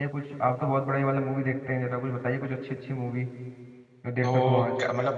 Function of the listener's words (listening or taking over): taking over